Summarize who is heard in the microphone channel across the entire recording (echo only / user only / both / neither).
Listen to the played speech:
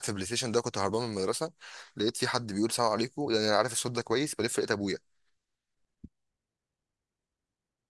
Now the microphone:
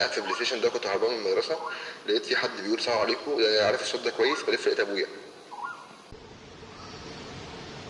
echo only